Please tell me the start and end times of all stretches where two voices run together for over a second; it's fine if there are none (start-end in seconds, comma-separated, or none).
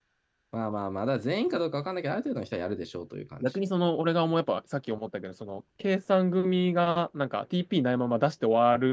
none